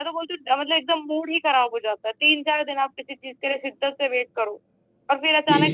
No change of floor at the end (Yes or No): Yes